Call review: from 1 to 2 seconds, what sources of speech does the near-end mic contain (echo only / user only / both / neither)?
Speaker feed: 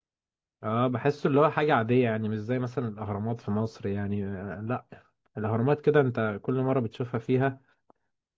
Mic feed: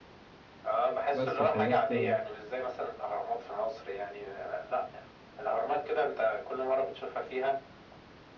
both